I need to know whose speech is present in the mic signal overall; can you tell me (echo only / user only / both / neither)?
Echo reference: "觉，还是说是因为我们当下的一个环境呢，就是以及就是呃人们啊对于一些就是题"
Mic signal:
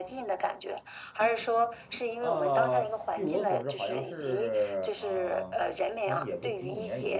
both